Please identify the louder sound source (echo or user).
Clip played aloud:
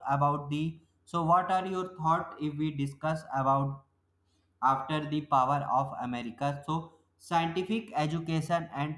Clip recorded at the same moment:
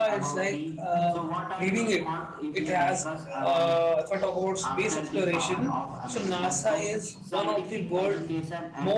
user